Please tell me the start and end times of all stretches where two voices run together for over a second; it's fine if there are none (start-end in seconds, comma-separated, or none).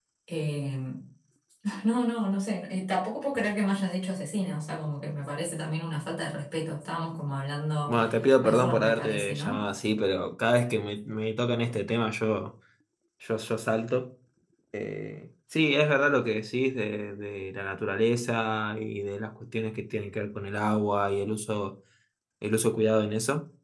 8.4-9.6